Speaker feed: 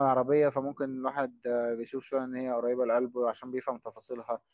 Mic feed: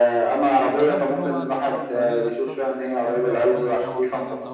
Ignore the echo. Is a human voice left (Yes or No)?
Yes